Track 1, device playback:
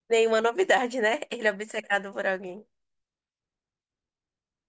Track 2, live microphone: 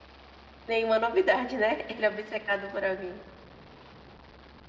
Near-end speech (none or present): none